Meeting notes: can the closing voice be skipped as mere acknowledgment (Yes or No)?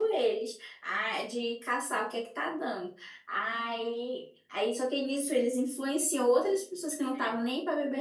Yes